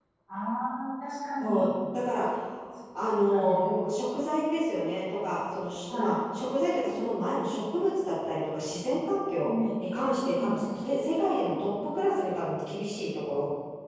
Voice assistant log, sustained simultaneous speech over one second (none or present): none